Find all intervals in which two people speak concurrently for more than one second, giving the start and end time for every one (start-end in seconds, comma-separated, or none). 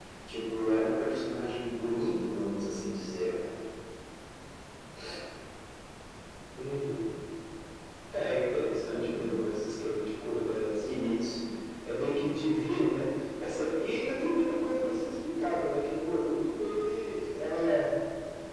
none